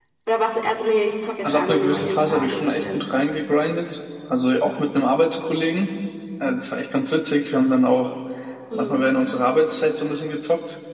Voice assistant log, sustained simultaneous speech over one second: present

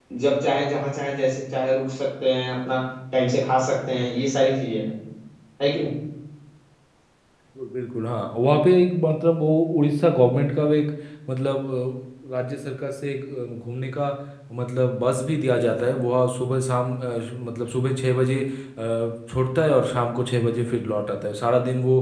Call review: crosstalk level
none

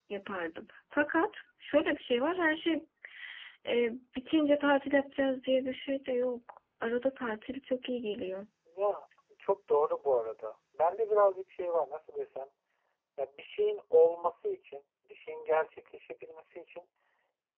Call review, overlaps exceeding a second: none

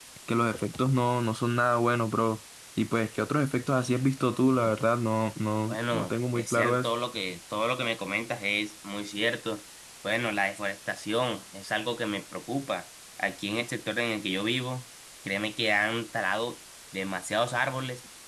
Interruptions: present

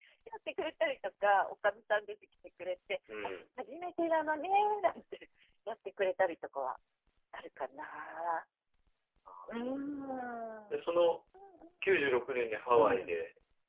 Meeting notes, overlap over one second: none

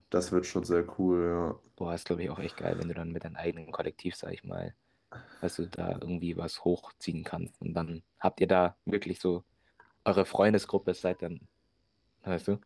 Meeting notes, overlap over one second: none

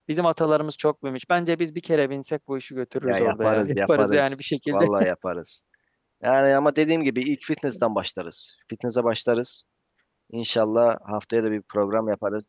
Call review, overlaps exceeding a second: present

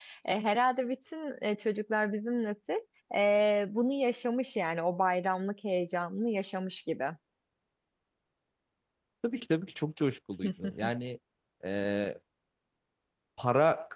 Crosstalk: none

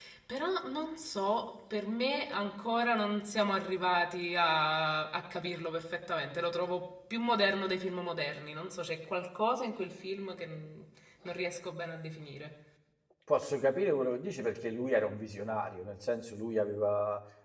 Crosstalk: none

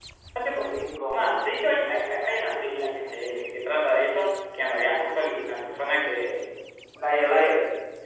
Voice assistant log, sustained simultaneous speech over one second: none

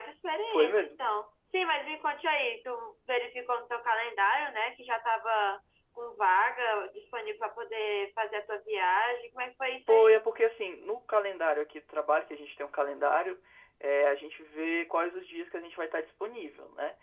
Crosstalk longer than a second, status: none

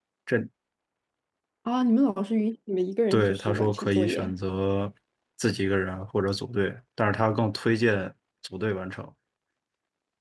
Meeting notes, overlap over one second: present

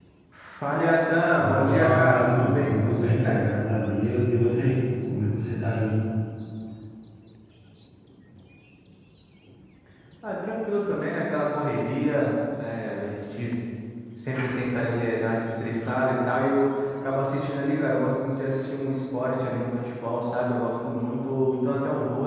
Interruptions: present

